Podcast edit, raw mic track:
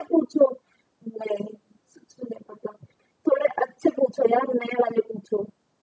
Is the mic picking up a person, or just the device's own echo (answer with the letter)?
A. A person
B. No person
B